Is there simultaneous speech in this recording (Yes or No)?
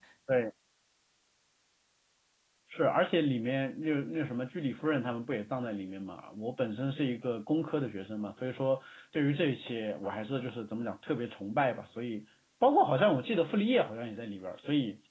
No